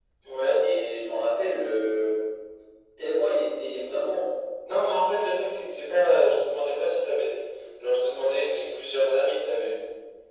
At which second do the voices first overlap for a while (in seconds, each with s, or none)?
none